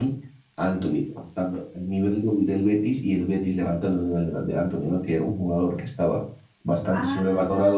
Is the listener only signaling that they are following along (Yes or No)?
Yes